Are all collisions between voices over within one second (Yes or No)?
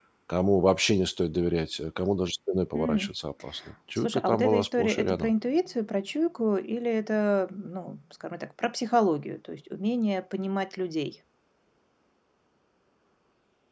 No